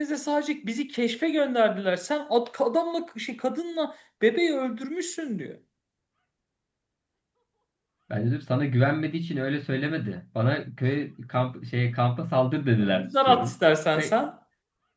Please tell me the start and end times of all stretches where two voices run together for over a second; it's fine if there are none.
12.9-14.1

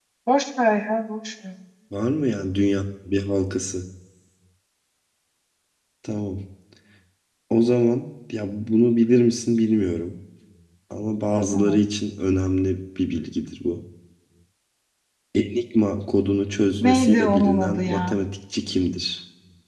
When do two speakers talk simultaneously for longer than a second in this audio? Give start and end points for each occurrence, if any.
16.8-18.2

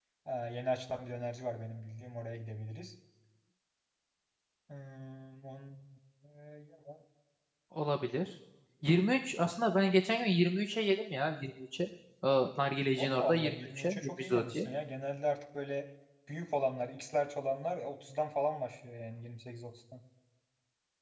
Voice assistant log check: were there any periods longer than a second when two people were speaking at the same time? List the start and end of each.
13.0-14.6

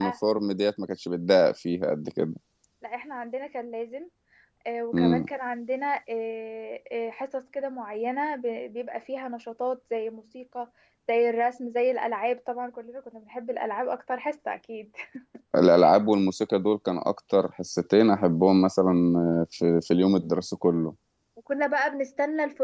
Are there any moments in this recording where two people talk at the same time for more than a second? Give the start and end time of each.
none

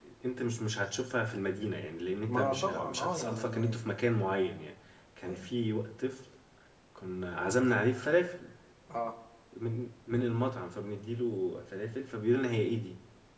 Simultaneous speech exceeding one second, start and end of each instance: 2.3-3.7

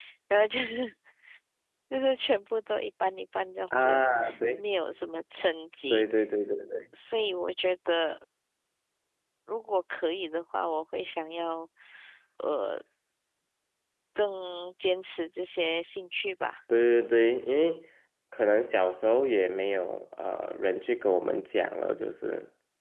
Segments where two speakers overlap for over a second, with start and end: none

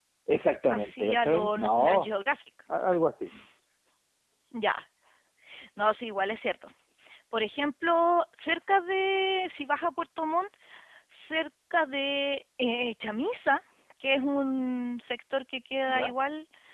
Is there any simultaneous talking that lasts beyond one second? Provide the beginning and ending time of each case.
0.7-2.1

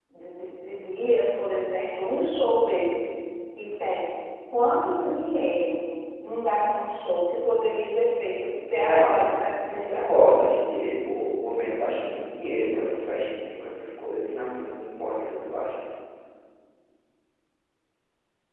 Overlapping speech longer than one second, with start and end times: 8.7-10.2

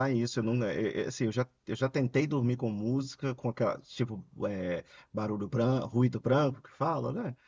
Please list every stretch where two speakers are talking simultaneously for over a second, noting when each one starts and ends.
none

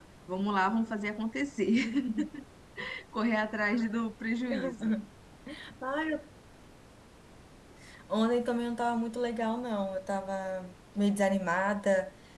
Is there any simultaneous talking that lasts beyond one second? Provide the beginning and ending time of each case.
none

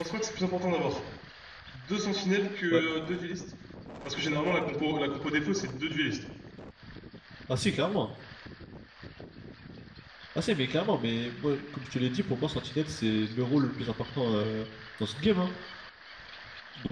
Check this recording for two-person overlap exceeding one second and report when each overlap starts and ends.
none

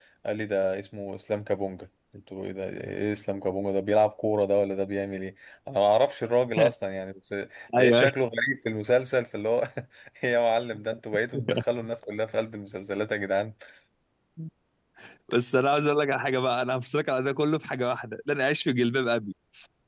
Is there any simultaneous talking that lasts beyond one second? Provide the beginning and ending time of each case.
none

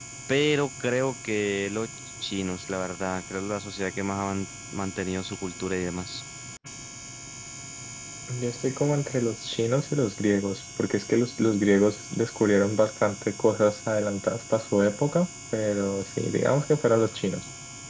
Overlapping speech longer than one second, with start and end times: none

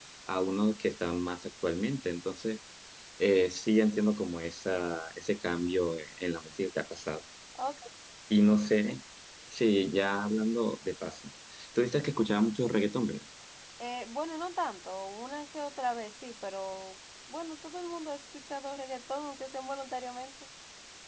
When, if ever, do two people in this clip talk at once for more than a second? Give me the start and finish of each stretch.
none

